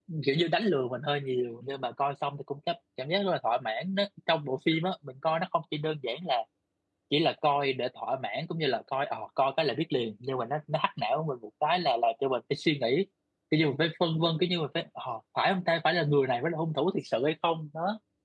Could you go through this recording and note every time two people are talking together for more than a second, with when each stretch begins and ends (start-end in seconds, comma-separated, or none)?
none